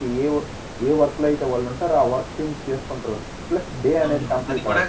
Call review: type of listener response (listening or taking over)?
taking over